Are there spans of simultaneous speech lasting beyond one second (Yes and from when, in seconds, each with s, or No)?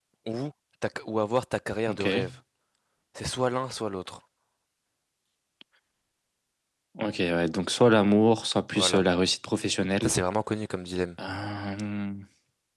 No